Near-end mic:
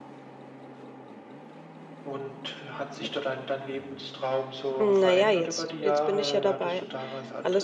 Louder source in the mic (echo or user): user